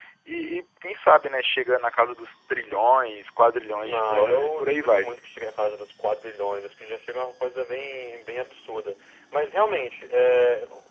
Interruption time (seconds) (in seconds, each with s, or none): 3.8 s